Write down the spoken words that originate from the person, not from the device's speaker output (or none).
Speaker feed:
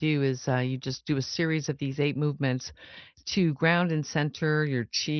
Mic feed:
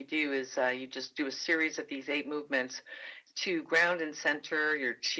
none